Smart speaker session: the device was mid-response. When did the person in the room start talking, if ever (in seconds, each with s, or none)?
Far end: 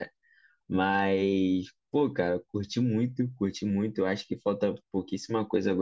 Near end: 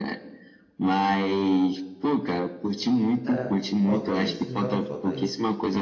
3.3 s